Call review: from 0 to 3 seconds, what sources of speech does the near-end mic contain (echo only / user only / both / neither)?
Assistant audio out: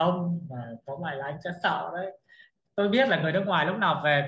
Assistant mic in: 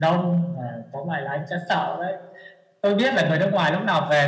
echo only